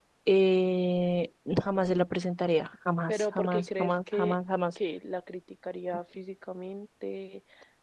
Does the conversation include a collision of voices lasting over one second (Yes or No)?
Yes